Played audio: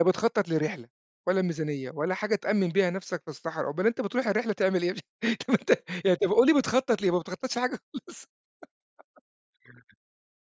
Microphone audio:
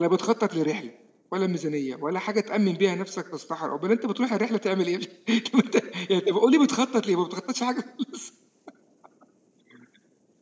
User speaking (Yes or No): No